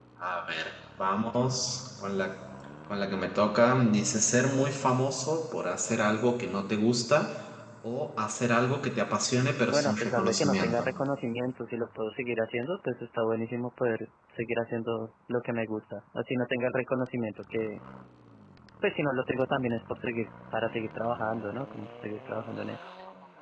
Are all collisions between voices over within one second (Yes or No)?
No